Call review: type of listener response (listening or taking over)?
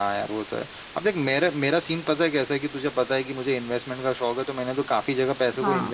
listening